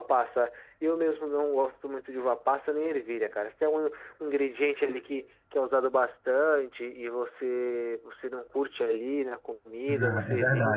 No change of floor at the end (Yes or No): No